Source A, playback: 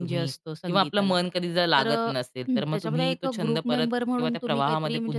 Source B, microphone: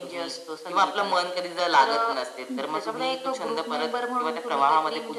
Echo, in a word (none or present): present